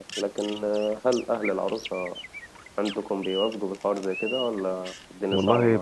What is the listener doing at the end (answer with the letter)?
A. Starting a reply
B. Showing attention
A